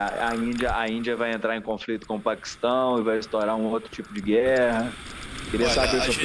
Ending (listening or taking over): taking over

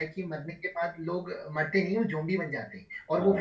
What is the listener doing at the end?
listening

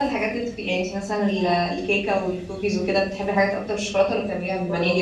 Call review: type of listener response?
taking over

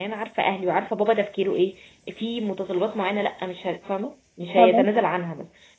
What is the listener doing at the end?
listening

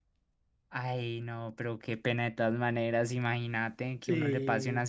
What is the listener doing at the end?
listening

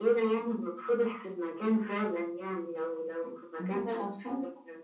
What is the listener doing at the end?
taking over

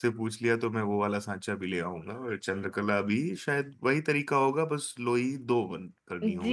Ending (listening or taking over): taking over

